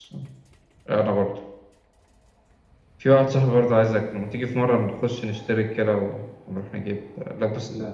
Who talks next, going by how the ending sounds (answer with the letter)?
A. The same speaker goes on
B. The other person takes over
A